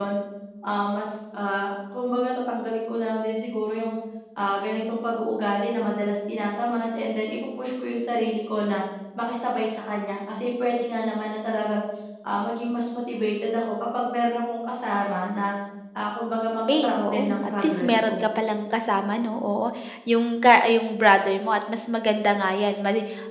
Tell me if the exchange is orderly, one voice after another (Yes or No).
No